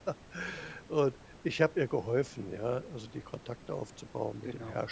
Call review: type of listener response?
listening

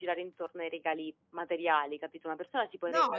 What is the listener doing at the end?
listening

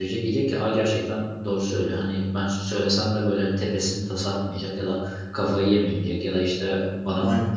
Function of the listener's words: listening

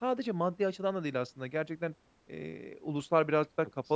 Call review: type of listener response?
listening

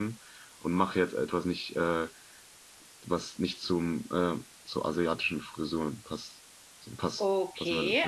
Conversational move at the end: taking over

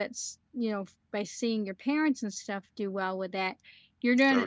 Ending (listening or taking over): listening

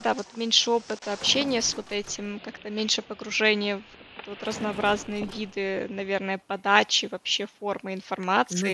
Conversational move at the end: taking over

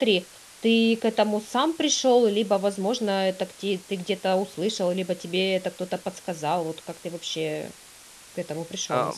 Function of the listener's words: taking over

